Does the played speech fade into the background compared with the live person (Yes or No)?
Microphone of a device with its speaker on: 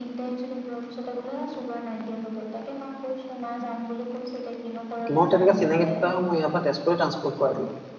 Yes